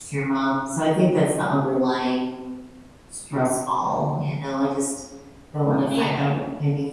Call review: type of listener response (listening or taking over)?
listening